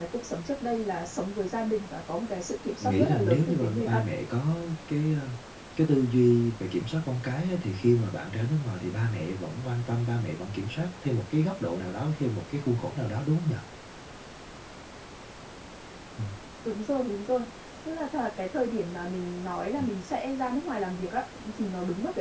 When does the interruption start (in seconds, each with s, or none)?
2.8 s